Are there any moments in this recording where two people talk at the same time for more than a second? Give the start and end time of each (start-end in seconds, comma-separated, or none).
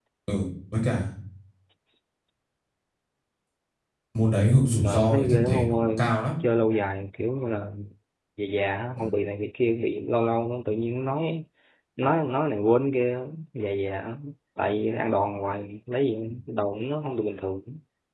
4.8-6.2